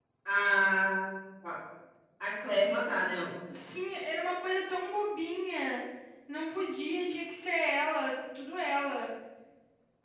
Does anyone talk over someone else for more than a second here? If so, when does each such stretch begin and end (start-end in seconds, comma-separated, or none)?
none